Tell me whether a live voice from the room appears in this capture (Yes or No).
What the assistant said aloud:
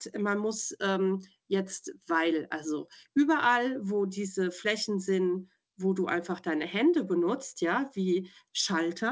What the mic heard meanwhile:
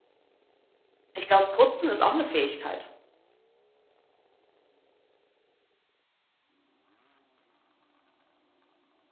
Yes